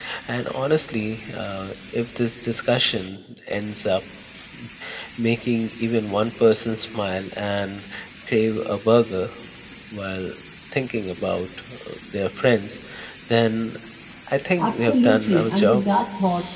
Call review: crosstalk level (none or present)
present